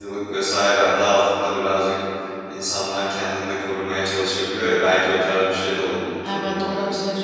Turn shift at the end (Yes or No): Yes